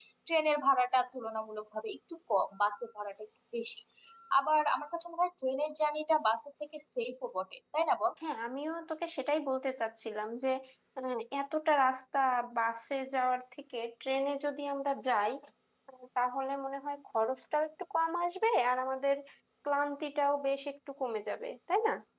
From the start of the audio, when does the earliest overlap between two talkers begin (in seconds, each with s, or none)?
none